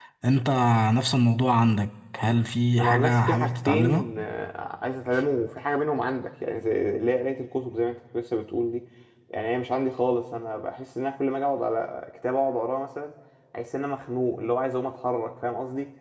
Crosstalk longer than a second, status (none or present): present